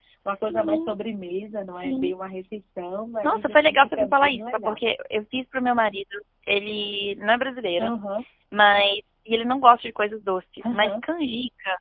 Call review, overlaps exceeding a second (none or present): present